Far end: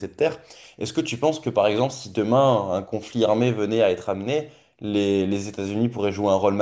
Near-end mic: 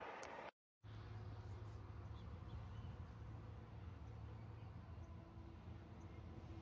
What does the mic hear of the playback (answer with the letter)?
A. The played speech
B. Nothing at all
B